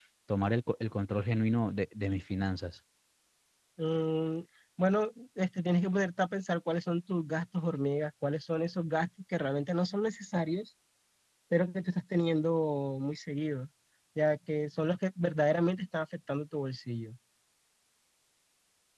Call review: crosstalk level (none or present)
none